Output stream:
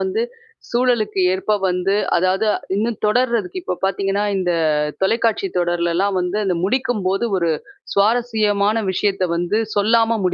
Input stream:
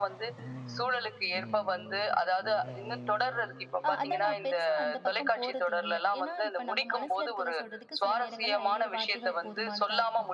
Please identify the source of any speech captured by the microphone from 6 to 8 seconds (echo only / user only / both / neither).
both